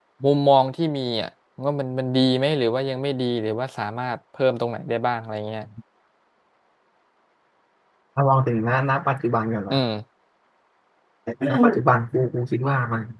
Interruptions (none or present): none